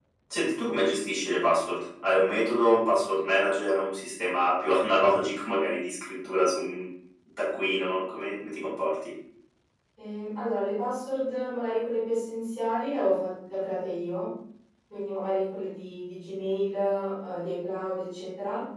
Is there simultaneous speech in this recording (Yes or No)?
No